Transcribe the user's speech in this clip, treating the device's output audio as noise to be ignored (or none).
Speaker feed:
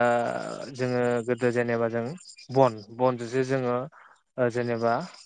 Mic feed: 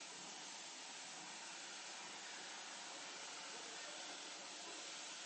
none